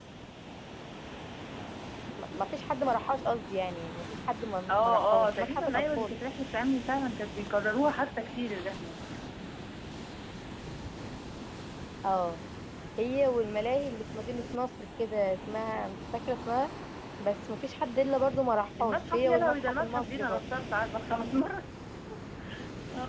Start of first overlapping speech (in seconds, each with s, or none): 4.7 s